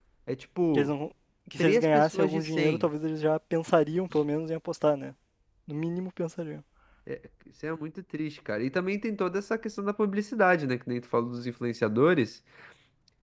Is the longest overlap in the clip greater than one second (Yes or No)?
Yes